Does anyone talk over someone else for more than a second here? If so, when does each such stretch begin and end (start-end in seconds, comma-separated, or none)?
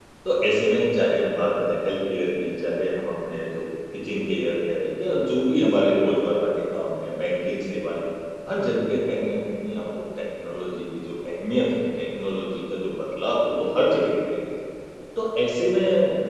none